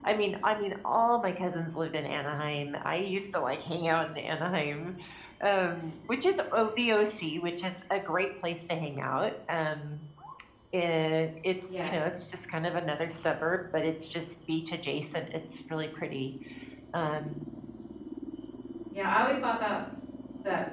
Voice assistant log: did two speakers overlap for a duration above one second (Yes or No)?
No